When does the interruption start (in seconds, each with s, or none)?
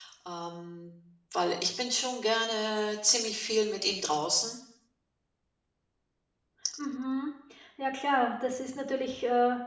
none